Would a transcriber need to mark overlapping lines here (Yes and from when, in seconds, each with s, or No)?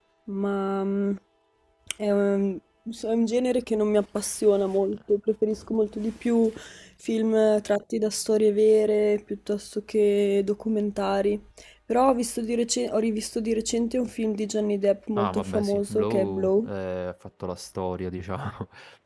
Yes, from 15.2 s